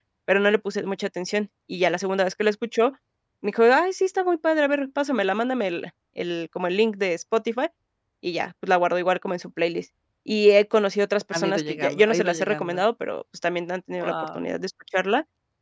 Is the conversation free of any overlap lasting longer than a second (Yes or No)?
No